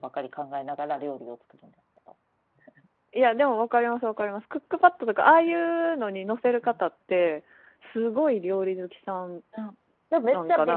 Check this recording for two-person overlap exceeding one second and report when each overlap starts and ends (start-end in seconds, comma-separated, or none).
none